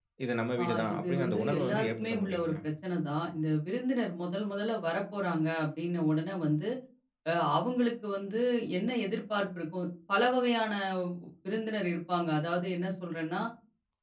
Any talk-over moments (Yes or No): Yes